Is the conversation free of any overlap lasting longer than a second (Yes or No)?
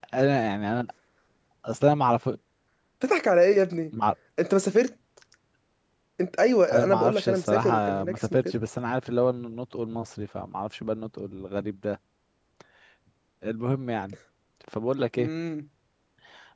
No